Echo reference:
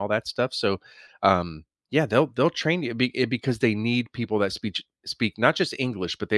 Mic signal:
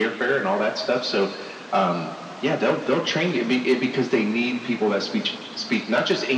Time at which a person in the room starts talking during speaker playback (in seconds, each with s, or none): none